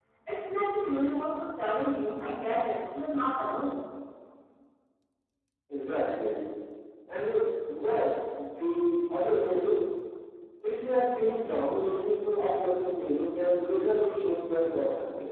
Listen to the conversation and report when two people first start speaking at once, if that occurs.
none

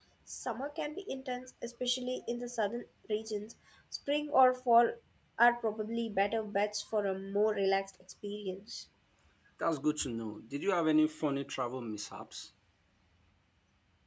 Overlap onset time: none

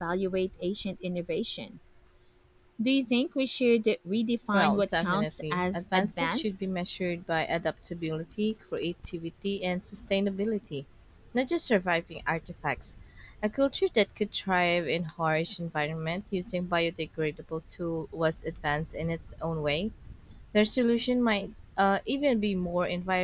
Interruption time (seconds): 4.5 s

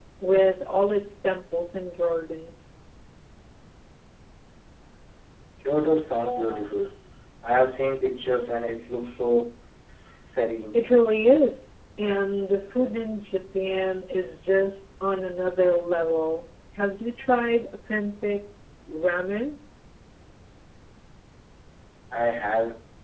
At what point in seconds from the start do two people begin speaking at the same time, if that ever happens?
none

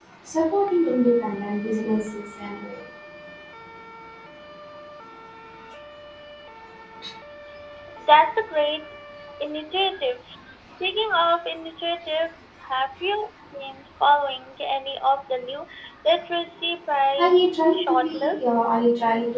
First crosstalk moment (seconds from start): 17.2 s

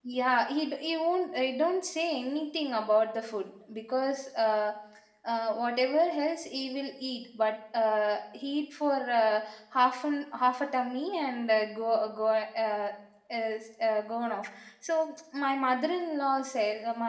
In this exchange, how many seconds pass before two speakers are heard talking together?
none

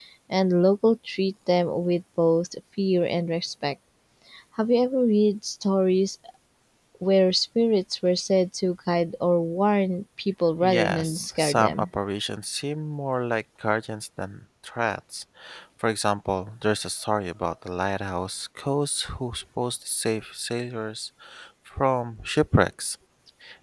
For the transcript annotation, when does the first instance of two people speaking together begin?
10.6 s

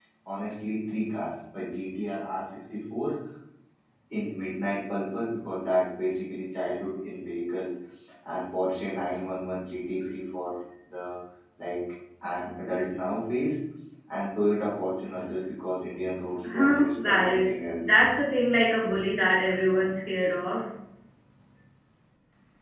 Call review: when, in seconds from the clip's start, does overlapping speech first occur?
16.4 s

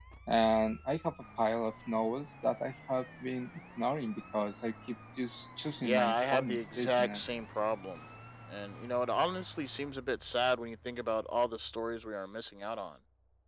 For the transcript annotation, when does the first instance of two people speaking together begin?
5.8 s

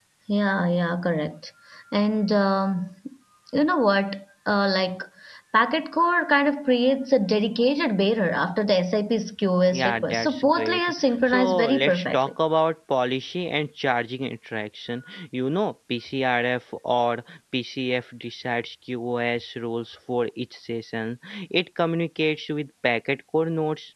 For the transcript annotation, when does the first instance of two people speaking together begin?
9.7 s

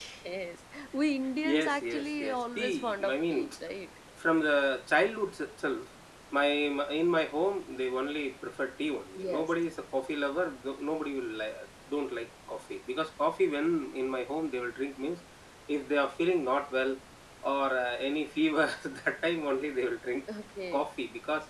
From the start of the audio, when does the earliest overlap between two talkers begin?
1.4 s

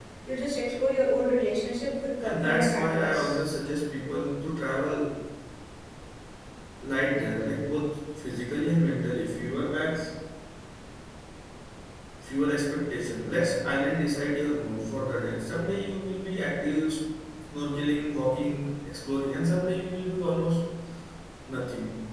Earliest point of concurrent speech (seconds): 2.2 s

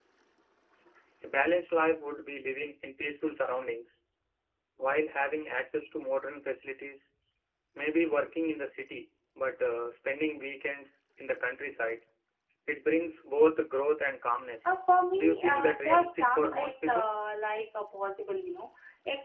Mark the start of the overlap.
15.2 s

